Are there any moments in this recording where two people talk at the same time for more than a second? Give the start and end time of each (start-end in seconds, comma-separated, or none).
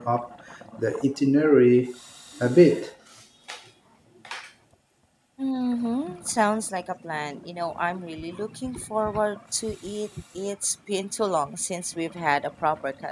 none